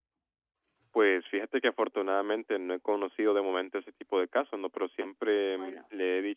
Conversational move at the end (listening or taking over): listening